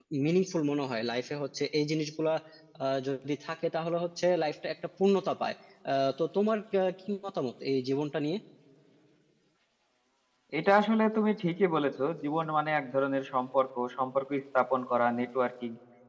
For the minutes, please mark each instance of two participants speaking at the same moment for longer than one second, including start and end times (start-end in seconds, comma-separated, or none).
none